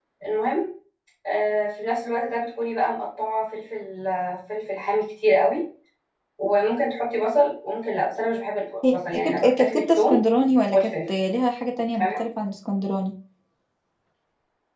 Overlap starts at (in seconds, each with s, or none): 8.9 s